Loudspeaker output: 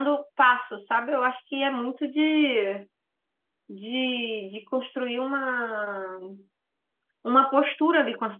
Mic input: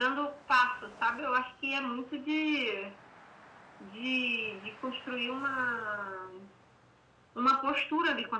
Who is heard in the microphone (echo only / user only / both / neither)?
echo only